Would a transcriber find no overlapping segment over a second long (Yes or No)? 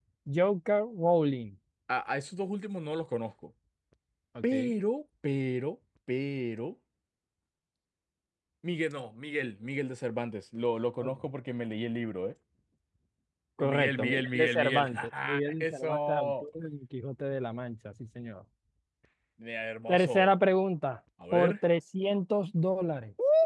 No